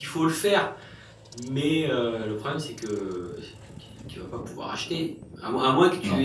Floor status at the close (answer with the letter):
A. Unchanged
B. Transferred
A